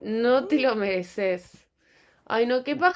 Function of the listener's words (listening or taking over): listening